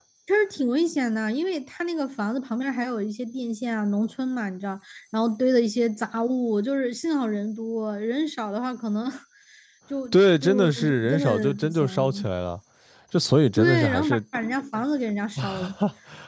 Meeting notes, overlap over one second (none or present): present